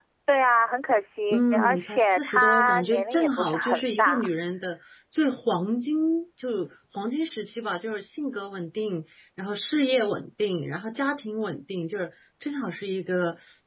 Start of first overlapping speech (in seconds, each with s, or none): 1.3 s